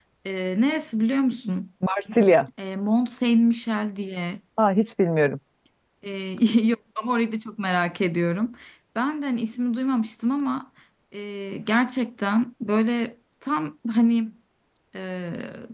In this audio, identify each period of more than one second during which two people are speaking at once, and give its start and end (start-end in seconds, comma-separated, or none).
none